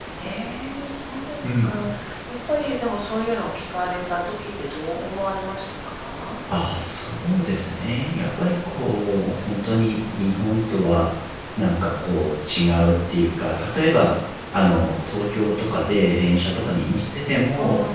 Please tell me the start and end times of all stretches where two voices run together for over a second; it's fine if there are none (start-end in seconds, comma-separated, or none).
none